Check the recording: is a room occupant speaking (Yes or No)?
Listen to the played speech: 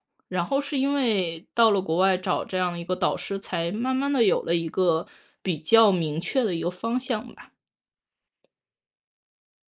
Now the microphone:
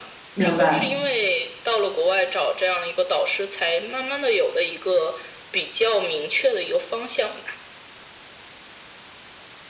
Yes